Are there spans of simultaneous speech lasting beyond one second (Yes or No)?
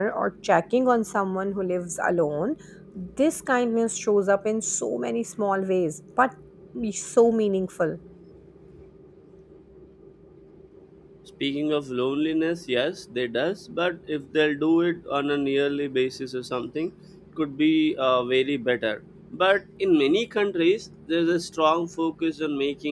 No